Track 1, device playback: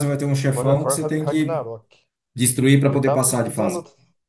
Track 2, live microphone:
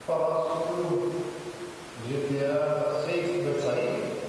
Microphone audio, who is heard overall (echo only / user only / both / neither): user only